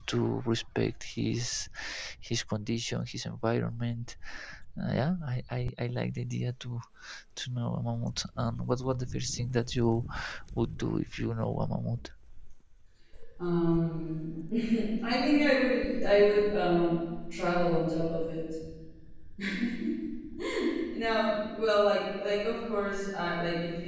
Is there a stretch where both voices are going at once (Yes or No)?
No